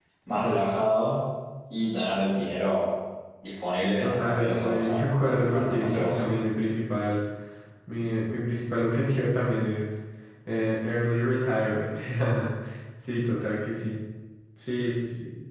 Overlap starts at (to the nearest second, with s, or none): 4 s